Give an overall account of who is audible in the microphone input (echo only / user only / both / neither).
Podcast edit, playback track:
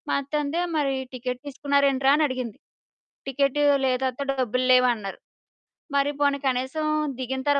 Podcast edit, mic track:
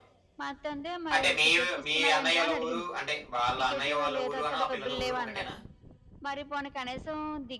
both